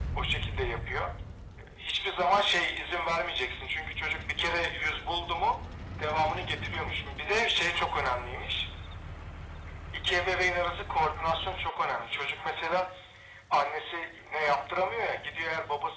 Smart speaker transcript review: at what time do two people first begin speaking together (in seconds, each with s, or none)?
none